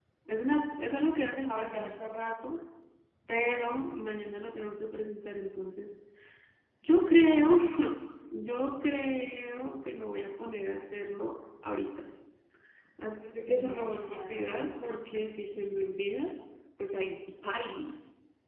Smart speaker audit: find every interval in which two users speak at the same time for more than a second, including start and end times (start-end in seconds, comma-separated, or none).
13.5-14.8